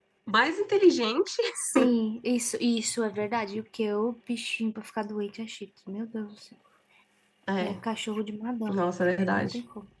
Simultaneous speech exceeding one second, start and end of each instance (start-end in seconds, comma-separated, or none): none